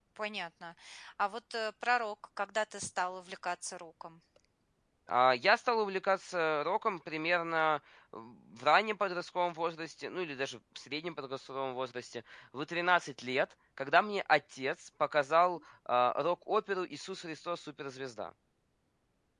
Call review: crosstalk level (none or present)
none